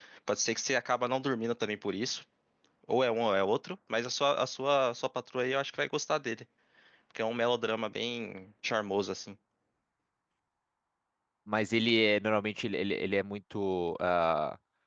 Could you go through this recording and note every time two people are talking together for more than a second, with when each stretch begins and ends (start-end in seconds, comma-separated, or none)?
none